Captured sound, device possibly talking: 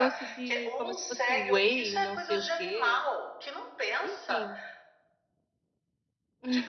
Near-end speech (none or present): present